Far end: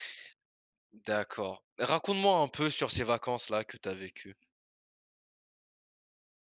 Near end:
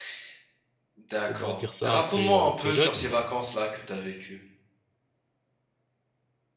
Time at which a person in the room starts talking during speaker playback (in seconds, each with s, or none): 1.2 s